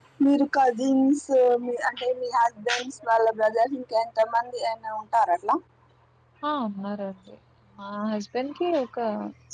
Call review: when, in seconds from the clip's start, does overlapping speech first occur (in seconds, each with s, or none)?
none